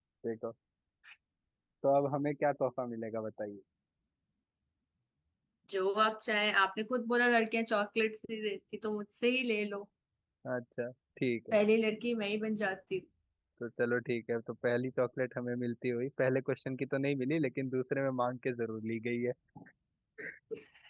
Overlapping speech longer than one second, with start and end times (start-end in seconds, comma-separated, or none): none